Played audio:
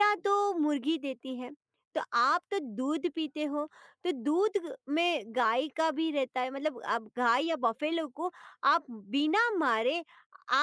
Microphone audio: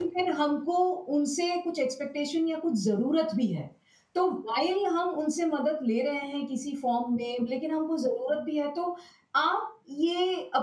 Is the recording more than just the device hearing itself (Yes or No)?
Yes